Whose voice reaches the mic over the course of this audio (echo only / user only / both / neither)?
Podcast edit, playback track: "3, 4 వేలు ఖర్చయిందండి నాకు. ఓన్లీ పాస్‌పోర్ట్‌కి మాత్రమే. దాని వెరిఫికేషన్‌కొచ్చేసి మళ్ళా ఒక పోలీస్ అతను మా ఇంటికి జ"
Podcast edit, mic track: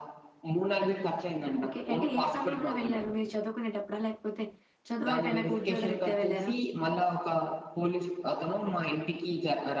both